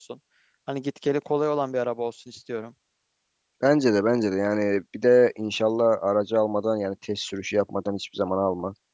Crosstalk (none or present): none